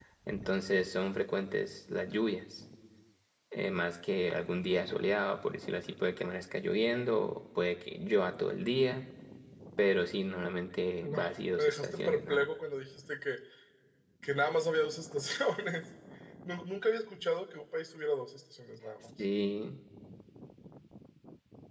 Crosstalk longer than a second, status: present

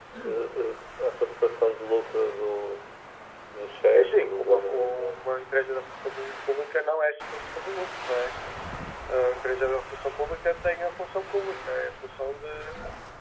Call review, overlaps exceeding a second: present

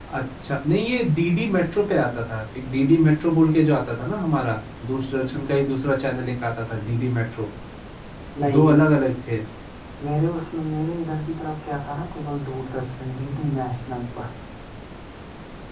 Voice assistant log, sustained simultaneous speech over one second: none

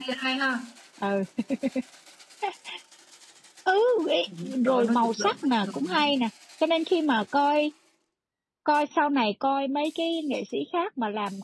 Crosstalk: present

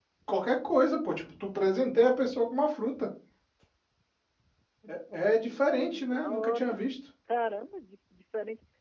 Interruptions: present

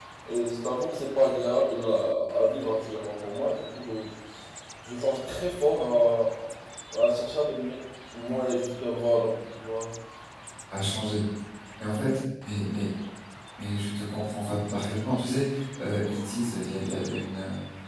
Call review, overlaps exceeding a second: none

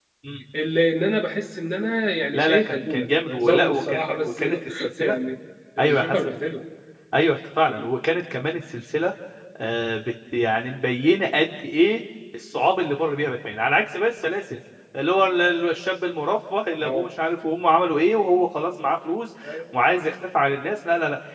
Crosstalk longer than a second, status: present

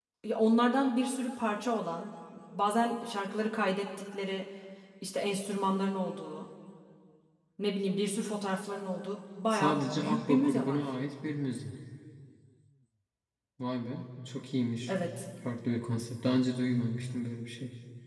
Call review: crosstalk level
present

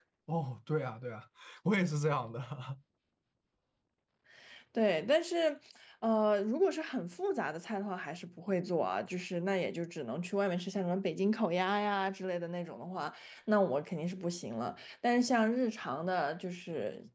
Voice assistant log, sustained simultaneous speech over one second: none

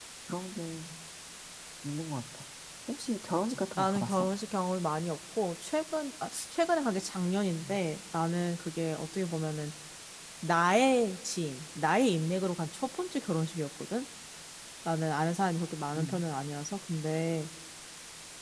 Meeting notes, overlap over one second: none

